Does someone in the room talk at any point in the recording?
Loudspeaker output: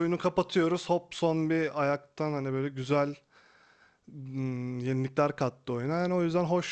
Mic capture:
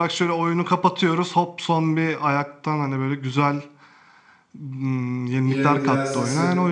Yes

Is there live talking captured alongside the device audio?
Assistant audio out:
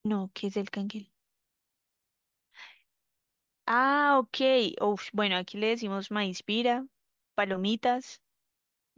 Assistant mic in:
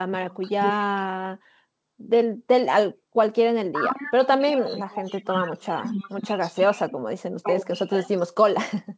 Yes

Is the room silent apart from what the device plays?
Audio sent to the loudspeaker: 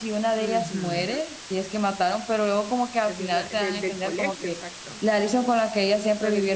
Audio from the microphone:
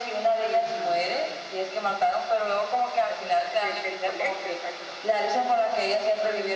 Yes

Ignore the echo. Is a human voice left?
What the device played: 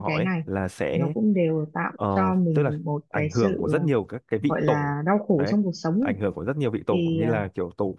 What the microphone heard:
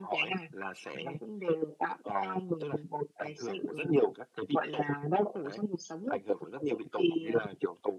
No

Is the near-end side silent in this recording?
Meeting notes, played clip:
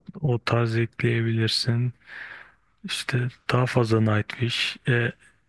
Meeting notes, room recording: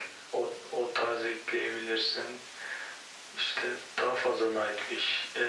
Yes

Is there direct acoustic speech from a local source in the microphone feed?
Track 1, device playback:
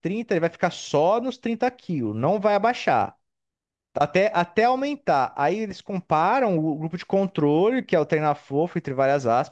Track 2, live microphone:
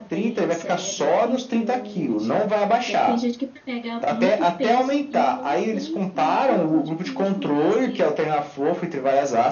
Yes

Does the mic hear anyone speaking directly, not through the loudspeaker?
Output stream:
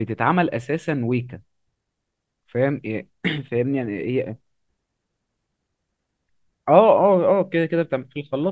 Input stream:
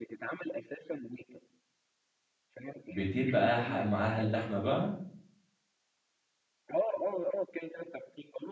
Yes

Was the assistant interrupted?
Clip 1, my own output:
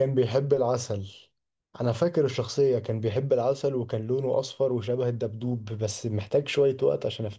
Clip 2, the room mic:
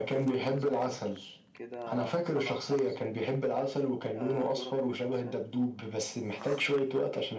Yes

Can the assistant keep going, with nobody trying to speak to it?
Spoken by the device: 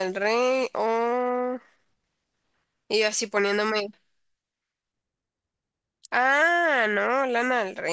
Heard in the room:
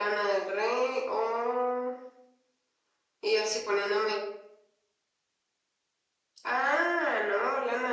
Yes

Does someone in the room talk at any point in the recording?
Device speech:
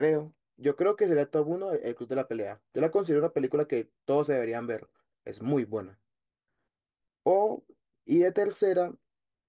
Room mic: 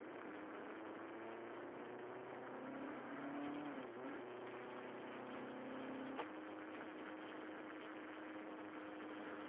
No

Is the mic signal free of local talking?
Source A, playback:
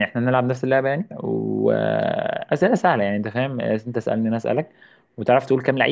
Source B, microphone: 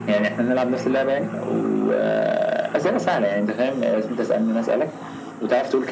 Yes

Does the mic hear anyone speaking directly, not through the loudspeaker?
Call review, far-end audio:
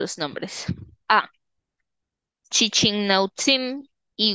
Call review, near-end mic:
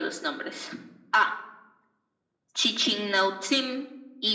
No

